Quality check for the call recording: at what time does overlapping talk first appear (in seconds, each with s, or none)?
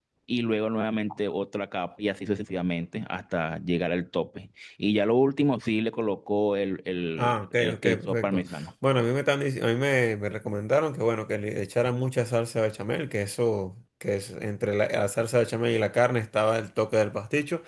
7.2 s